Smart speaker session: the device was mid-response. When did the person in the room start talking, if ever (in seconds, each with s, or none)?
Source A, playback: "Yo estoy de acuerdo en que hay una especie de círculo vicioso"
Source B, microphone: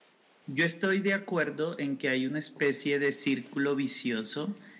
none